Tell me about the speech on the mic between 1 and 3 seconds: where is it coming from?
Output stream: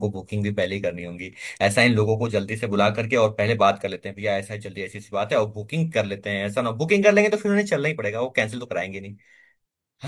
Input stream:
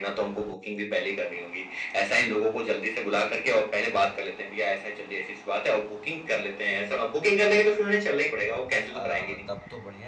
echo only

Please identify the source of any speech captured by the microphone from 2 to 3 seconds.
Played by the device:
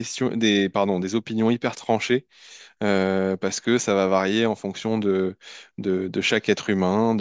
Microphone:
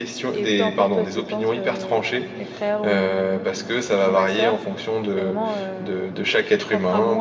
both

